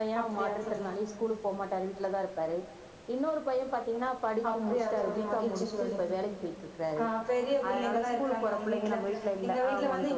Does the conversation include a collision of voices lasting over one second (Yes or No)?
Yes